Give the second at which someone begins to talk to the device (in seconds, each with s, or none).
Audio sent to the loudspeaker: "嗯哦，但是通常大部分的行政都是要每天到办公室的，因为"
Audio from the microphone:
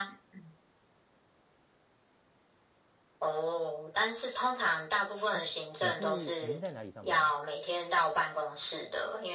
5.3 s